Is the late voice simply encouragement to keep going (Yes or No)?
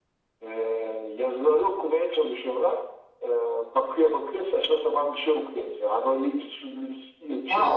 No